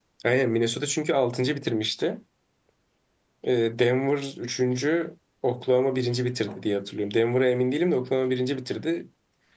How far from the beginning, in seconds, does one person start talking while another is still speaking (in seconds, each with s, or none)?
none